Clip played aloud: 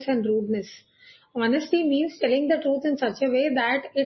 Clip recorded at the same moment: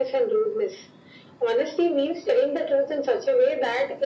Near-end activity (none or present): none